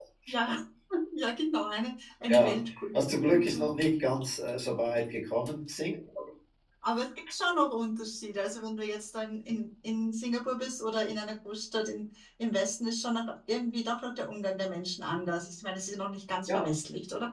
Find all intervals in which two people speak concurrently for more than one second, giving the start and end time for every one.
2.3-3.6

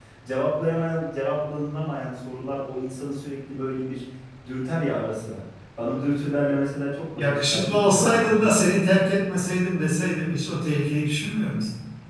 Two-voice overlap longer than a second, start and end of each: 7.2-8.6

